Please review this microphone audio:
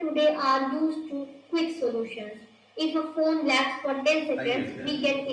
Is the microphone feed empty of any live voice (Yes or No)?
No